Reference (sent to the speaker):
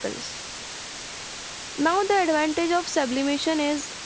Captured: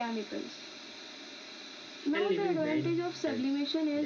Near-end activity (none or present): present